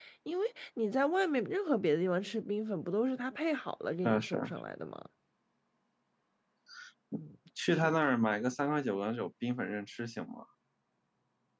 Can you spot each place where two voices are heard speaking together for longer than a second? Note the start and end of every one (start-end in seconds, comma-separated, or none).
none